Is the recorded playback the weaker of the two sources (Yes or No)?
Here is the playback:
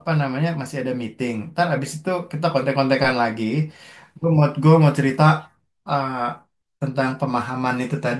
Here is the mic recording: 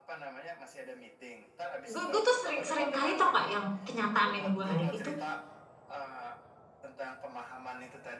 Yes